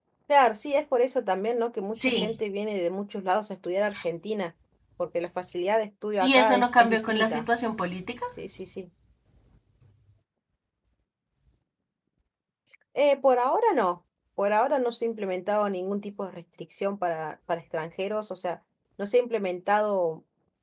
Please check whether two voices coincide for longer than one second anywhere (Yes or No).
Yes